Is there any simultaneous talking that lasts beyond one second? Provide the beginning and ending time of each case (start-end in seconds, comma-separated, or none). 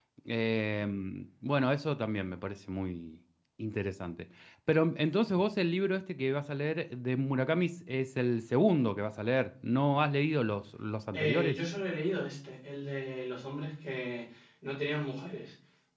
none